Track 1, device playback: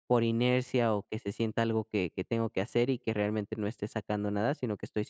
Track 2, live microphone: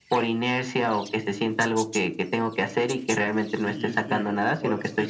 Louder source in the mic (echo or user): echo